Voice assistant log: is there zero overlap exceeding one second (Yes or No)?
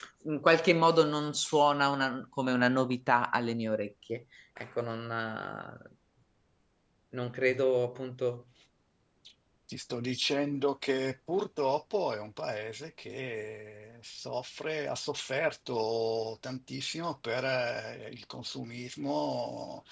Yes